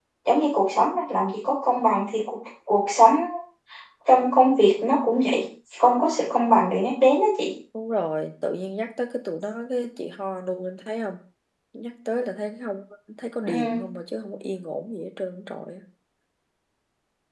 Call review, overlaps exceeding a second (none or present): none